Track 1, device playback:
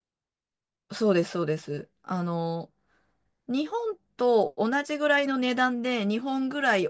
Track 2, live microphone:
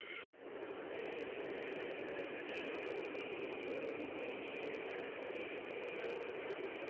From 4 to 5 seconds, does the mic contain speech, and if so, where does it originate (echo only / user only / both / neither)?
neither